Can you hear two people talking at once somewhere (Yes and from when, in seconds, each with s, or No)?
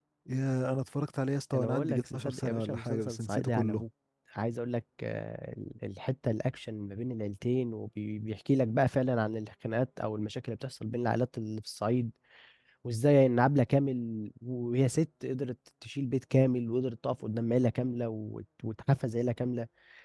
Yes, from 1.5 s